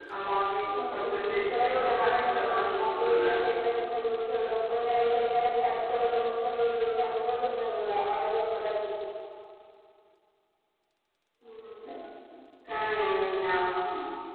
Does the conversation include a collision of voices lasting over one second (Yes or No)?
Yes